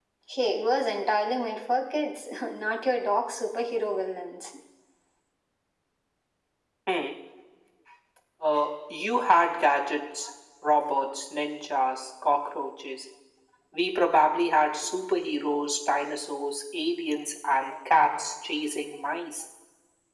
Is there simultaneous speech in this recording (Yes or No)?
No